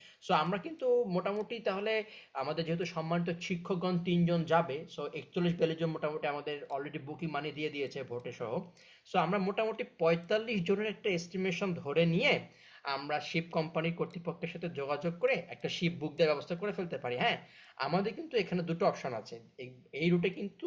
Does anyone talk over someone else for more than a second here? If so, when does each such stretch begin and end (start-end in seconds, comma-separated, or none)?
none